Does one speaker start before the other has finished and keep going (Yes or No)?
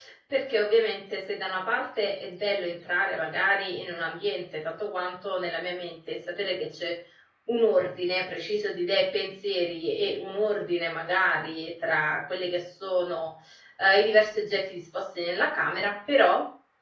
No